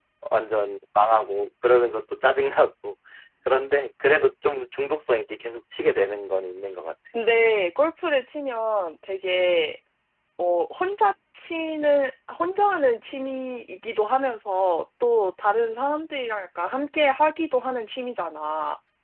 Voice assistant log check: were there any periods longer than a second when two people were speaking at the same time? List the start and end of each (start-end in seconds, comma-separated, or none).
none